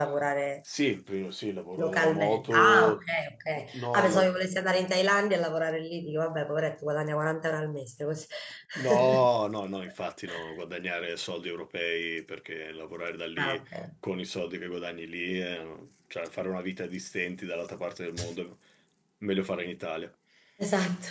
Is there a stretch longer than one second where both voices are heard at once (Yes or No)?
Yes